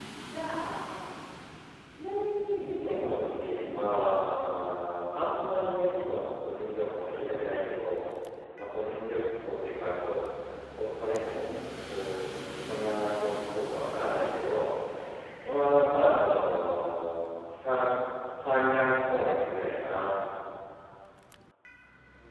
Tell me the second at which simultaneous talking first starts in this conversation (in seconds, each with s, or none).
2.8 s